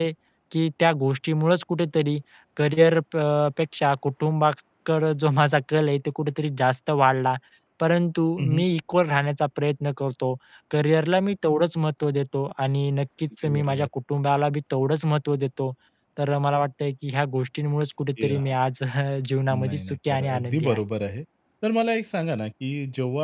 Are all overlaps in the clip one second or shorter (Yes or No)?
No